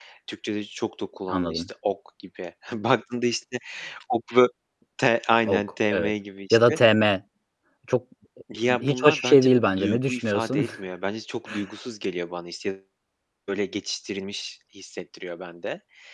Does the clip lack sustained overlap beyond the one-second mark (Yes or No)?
No